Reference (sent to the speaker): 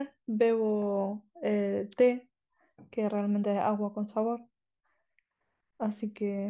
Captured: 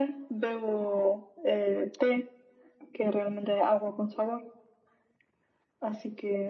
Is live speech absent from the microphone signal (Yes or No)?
Yes